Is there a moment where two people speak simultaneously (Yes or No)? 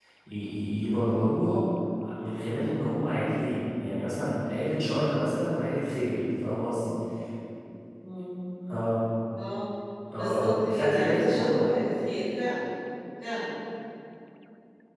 Yes